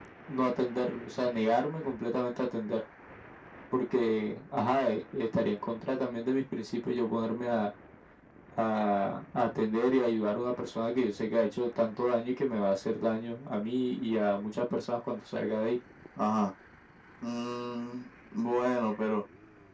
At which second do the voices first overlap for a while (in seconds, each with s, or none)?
none